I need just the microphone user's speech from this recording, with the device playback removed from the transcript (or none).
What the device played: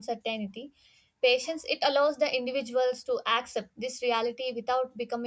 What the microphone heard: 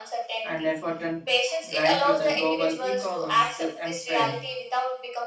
and effort and blind to the global e-commerce to empire